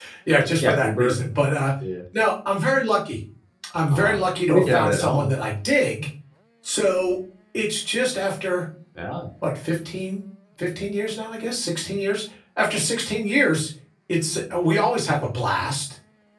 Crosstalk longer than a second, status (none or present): present